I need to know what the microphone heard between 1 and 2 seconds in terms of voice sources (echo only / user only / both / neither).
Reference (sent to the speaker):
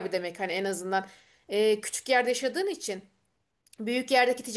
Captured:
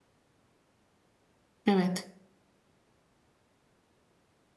user only